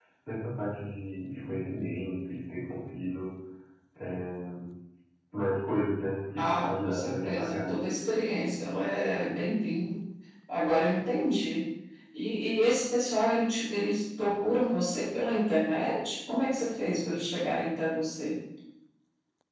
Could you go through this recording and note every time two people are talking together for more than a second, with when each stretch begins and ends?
6.4-7.8

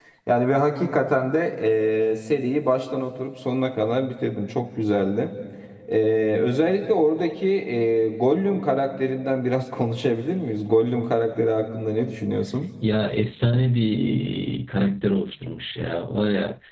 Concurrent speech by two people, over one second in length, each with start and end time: none

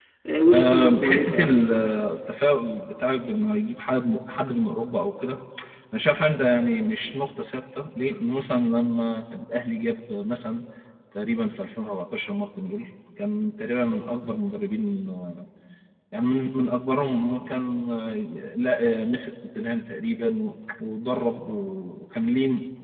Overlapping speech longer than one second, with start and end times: 0.5-1.9

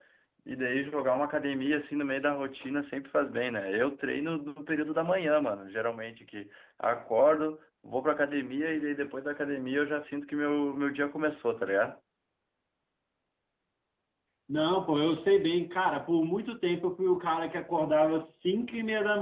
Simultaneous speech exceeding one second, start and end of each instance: none

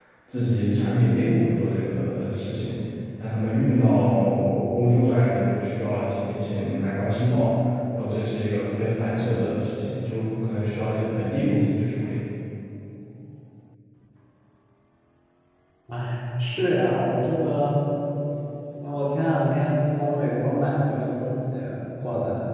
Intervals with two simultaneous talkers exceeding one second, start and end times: none

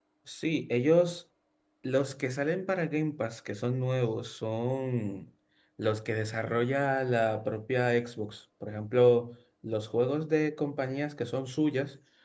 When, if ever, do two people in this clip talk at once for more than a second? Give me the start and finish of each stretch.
none

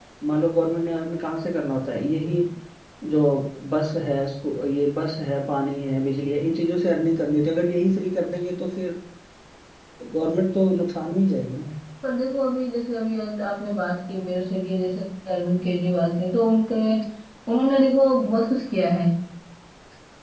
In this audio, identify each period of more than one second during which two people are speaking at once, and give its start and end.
none

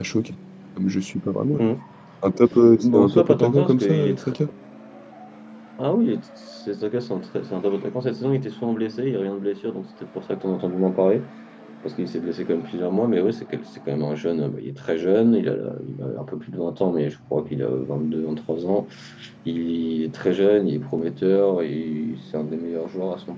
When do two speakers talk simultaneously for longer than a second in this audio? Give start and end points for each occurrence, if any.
2.8-4.3

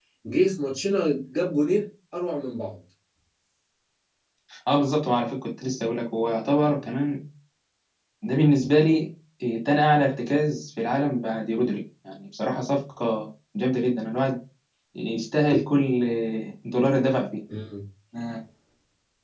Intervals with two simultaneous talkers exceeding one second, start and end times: none

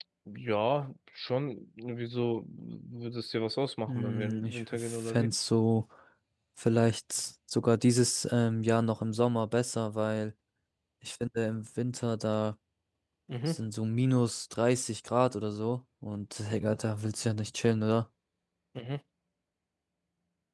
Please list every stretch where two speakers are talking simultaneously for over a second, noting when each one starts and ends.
3.9-5.3

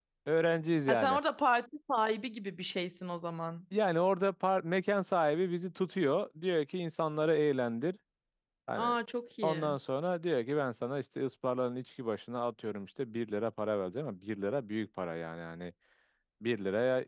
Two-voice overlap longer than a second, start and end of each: none

